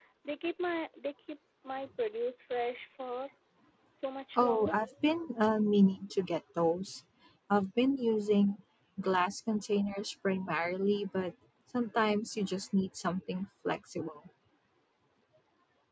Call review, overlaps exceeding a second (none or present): none